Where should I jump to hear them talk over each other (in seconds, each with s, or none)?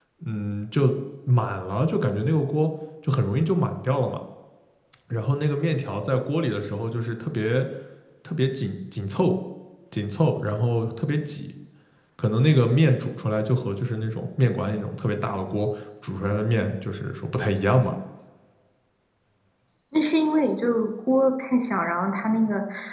none